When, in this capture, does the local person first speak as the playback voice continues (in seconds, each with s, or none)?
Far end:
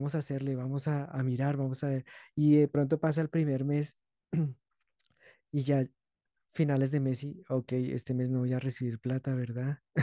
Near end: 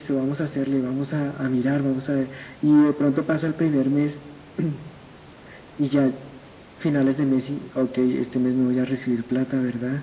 none